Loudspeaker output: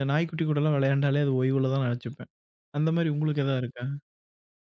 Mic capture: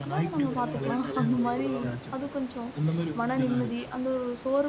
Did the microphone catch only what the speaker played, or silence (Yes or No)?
No